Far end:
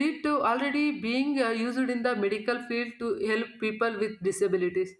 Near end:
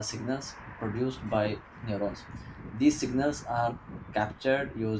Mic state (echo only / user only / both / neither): user only